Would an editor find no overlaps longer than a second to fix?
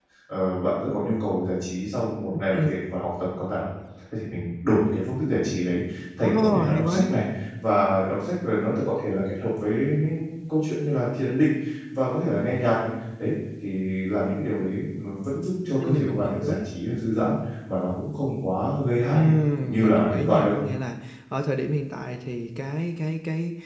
No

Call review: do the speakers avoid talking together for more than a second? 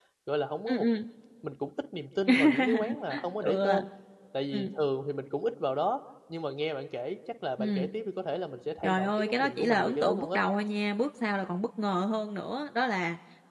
No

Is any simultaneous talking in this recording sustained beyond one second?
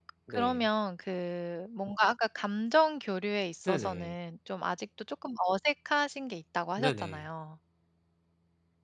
No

